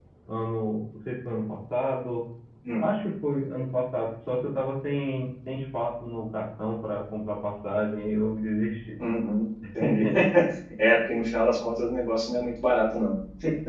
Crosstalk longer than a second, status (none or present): none